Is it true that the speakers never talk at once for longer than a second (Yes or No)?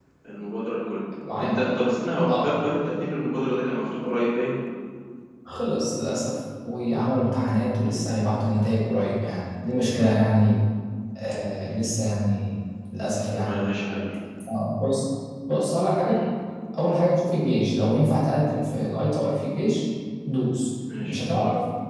Yes